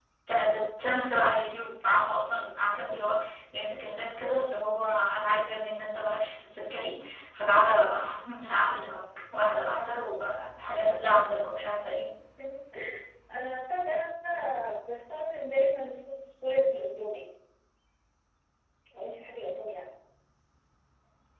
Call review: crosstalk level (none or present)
none